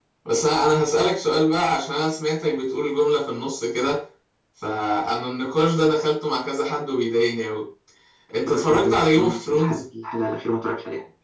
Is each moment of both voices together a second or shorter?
No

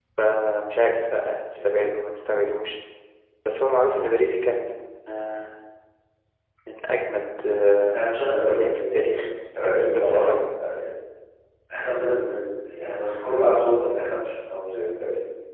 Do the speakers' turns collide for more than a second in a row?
Yes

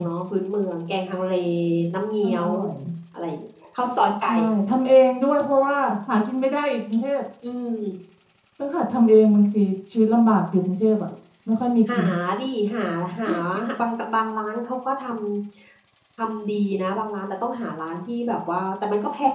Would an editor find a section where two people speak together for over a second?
No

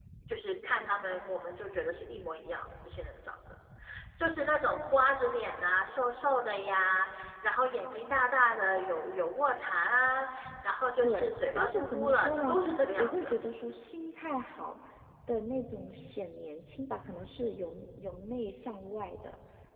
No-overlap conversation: No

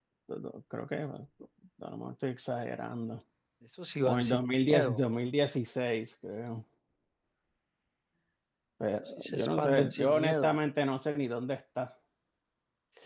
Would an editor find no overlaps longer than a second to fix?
No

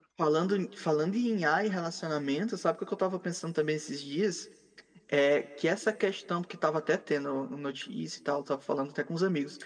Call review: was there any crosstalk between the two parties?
No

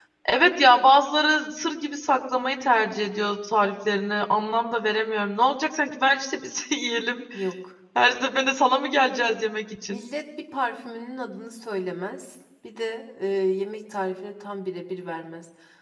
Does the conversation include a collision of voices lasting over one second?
No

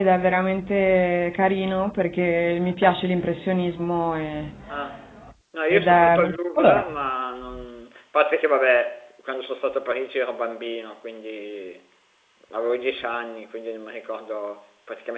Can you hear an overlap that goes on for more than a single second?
Yes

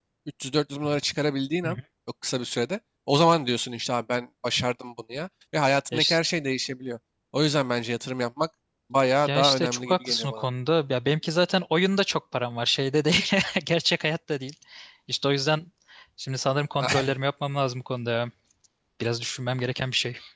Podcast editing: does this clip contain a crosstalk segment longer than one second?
Yes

